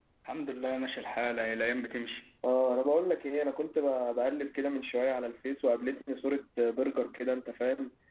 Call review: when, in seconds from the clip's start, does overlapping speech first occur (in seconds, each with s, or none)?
none